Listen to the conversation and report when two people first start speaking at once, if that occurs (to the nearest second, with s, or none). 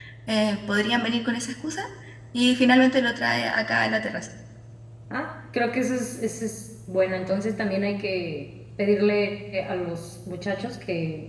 none